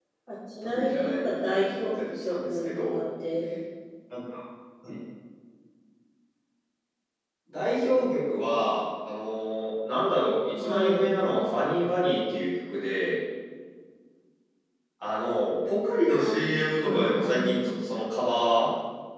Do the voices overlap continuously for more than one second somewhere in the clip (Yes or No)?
Yes